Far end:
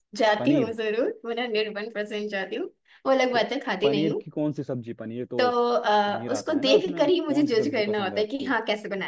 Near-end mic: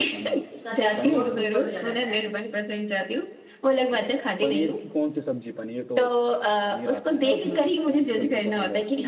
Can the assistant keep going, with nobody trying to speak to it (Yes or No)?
No